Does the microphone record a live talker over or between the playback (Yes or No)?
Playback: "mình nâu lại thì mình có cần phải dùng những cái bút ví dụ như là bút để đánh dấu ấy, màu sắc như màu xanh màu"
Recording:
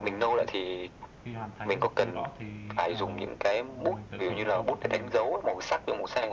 Yes